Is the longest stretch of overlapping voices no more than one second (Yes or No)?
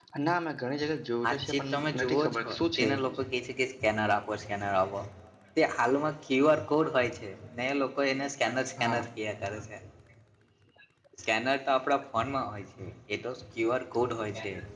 No